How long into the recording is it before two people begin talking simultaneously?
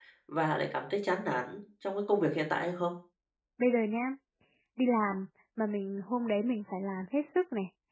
none

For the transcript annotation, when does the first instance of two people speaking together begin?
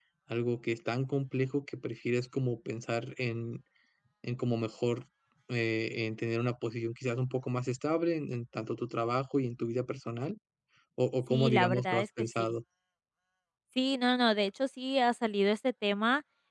11.3 s

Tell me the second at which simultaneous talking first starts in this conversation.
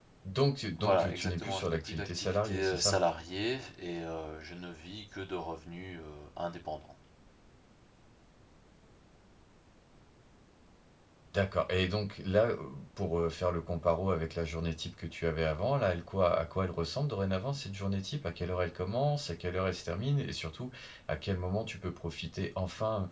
0.8 s

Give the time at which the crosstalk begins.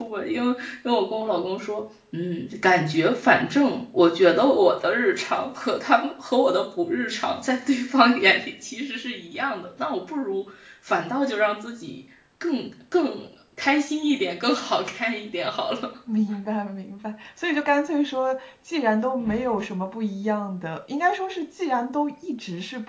none

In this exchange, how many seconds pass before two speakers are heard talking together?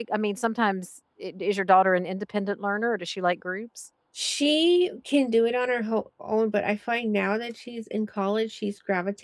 none

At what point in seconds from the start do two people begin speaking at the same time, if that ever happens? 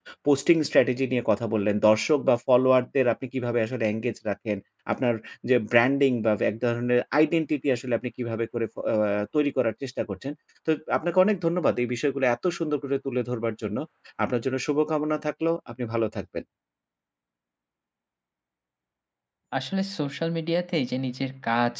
none

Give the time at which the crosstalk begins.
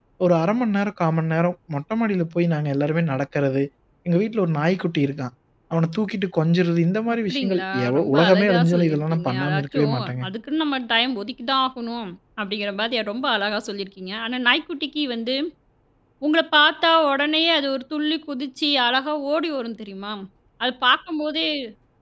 7.1 s

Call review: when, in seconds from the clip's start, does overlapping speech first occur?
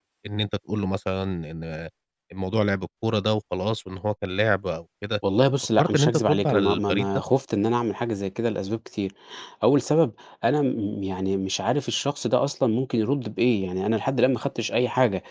5.8 s

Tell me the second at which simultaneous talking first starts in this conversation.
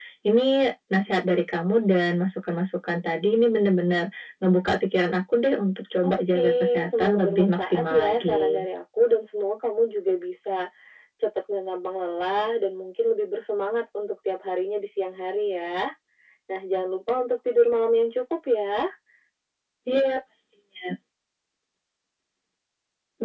6.0 s

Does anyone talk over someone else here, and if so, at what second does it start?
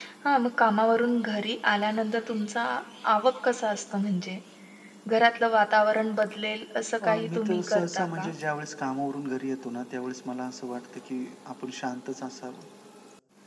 7.0 s

